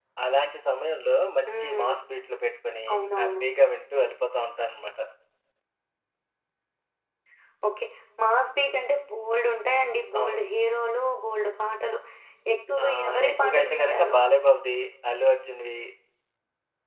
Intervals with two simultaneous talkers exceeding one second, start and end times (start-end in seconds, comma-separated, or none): 12.8-14.2